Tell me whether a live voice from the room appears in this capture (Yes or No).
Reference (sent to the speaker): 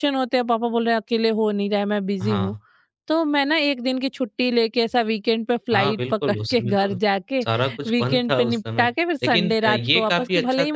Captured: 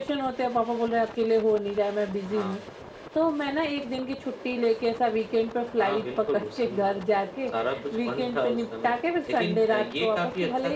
No